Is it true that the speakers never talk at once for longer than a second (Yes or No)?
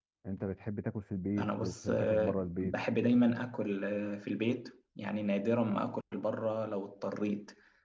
No